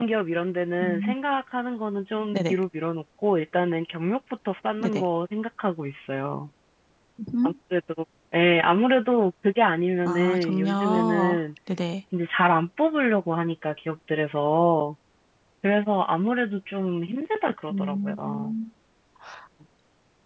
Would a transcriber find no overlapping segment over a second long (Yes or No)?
No